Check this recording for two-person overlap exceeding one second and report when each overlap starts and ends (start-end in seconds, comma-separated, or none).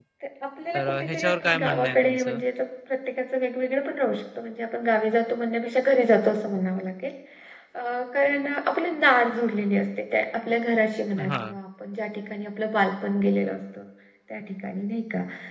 0.7-2.4